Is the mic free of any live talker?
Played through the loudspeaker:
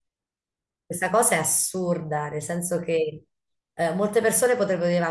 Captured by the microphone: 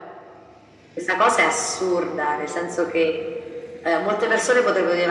Yes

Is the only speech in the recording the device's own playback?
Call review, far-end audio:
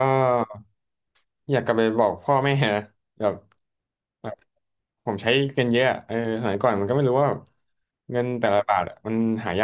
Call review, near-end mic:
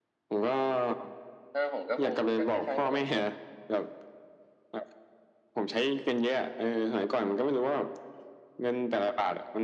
No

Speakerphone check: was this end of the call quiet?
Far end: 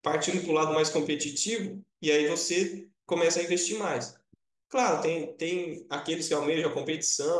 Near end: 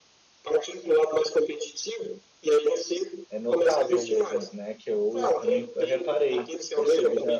No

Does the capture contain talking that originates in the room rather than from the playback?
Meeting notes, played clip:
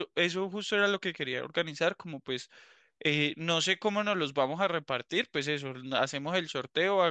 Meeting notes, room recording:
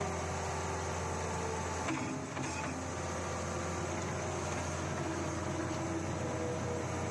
No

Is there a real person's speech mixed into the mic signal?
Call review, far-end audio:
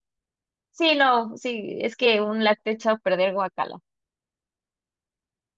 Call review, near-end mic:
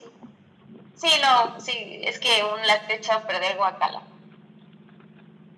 No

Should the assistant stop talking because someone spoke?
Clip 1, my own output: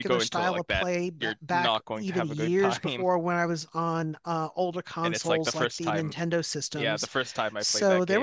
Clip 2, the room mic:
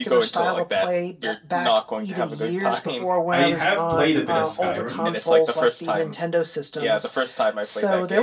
Yes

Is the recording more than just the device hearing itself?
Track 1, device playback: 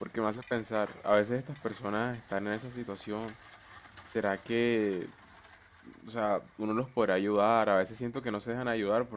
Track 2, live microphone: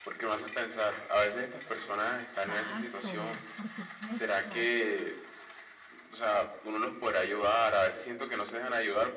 Yes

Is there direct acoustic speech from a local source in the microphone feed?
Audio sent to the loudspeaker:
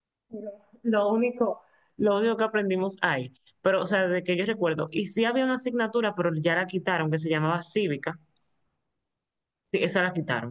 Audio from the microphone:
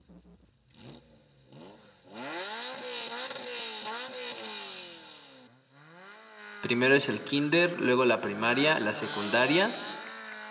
Yes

